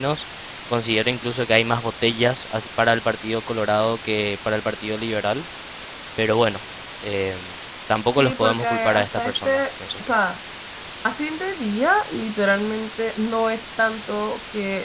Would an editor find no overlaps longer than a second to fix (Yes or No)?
No